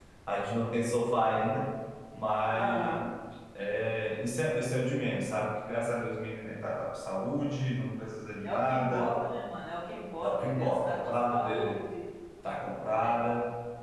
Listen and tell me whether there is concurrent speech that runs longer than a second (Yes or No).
Yes